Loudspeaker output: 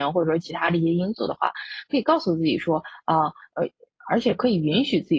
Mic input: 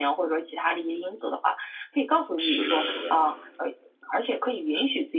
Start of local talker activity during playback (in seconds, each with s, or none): 2.4 s